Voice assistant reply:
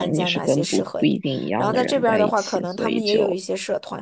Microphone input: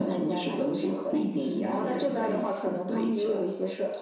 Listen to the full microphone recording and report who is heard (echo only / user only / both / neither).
echo only